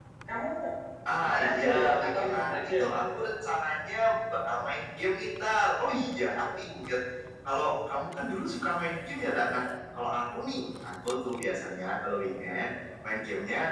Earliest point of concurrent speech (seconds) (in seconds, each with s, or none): 1.2 s